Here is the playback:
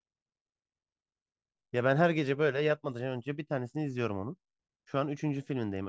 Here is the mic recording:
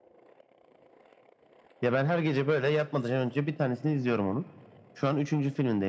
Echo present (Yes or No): Yes